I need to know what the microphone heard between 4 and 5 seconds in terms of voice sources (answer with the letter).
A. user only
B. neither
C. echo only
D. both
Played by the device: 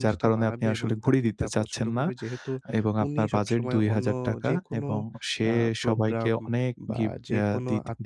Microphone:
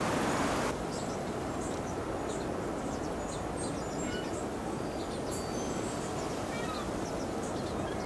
B